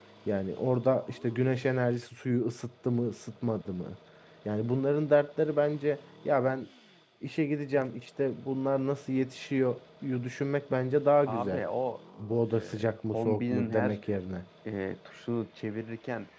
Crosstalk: present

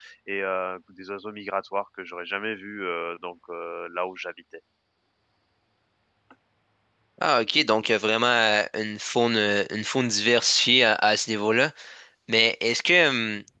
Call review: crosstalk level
none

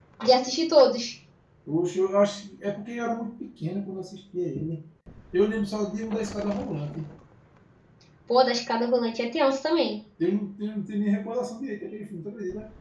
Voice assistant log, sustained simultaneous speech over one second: none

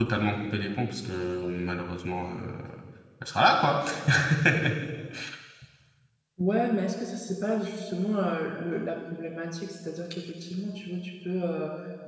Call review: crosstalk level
none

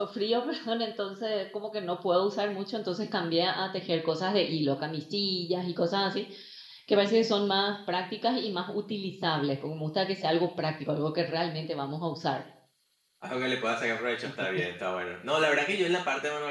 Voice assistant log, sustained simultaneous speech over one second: none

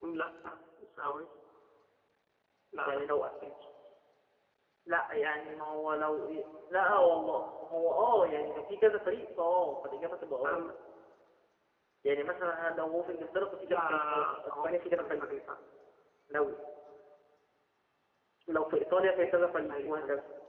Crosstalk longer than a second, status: present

